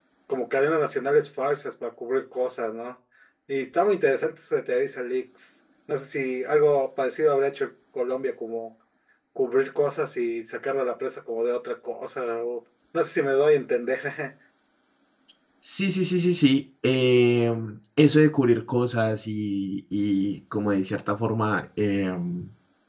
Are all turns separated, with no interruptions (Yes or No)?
Yes